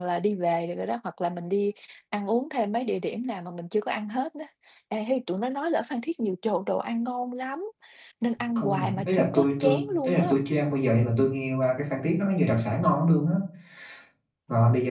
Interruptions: present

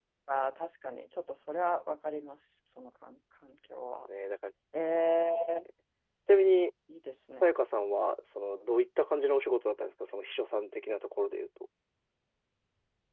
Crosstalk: none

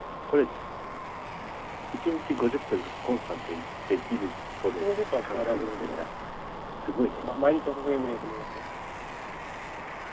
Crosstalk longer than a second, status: present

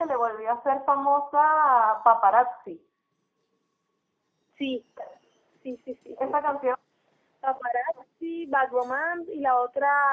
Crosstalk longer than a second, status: none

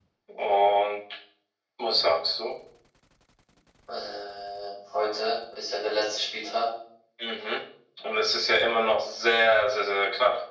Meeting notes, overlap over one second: none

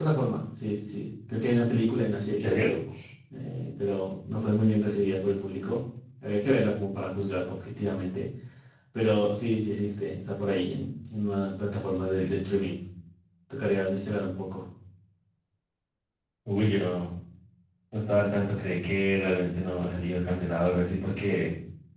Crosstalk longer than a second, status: none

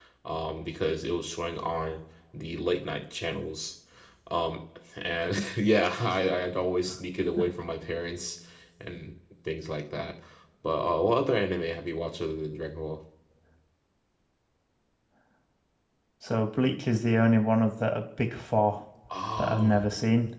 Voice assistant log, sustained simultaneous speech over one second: none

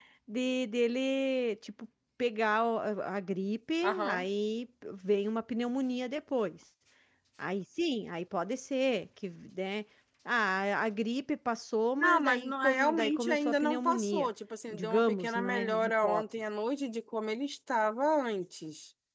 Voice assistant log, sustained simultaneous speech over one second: present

